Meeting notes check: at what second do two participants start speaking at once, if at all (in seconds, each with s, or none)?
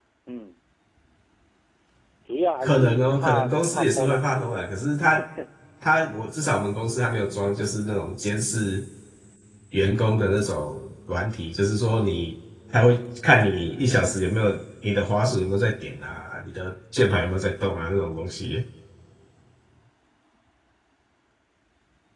2.6 s